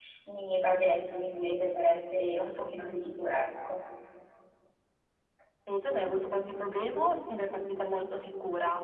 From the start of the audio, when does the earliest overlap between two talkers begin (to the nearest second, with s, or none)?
none